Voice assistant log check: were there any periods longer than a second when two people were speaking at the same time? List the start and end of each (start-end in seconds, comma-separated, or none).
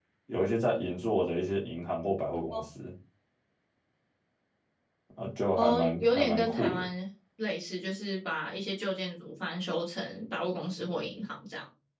5.6-6.8